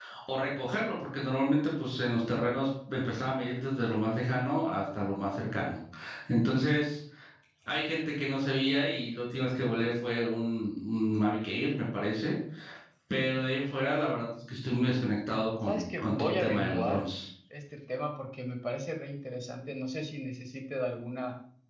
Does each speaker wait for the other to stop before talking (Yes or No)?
No